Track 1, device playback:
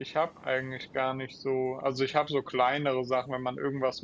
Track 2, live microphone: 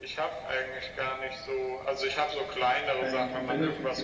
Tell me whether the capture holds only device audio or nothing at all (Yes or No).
No